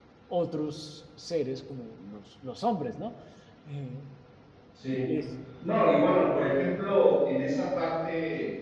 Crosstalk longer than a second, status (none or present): none